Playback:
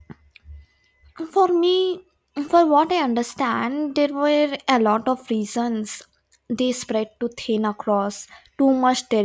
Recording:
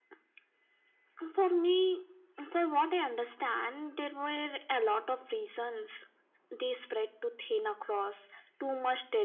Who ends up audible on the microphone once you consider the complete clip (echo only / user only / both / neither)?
echo only